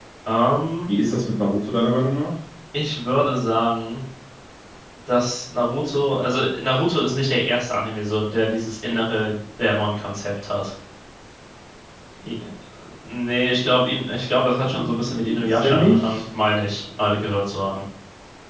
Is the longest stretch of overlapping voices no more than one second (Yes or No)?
No